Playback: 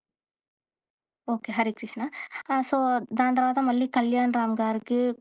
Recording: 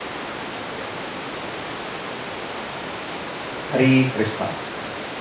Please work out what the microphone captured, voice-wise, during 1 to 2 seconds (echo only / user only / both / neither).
neither